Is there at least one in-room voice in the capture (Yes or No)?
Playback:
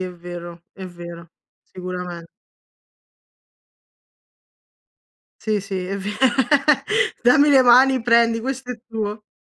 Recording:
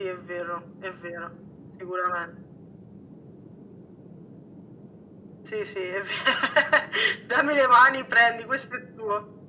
No